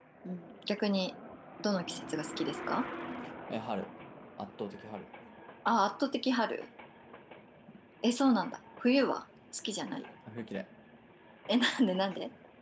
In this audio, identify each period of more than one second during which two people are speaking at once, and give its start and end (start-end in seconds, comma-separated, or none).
none